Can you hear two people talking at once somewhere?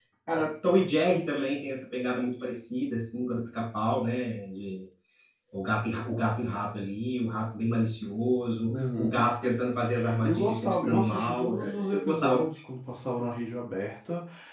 Yes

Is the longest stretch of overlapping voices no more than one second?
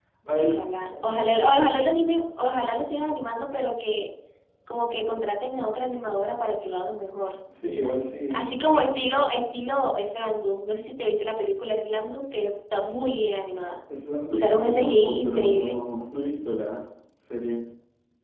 No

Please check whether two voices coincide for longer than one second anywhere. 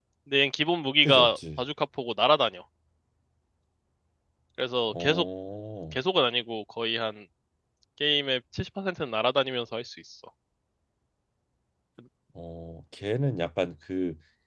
No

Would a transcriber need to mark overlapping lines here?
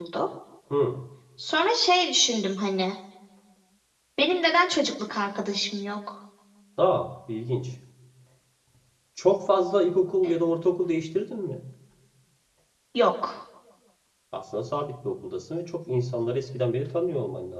No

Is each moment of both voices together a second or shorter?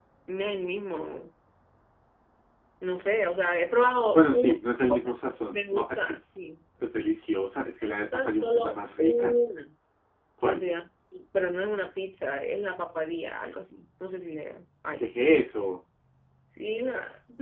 No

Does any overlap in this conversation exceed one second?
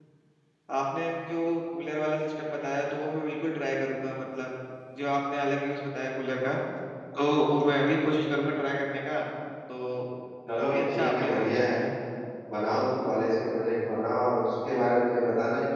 Yes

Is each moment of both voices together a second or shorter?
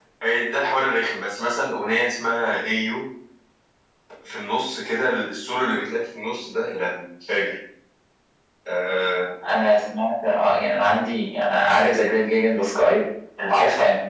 Yes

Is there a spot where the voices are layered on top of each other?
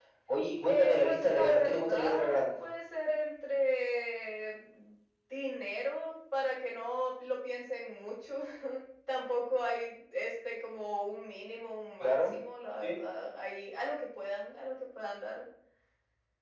Yes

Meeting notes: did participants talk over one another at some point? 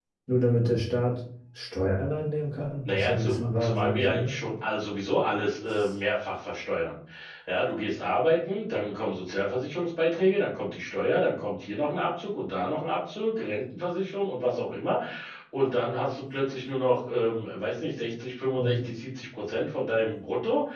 Yes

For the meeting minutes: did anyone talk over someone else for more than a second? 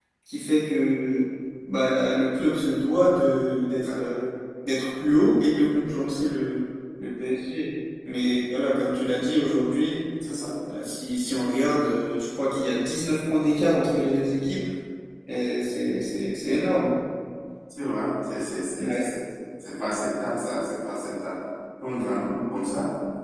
No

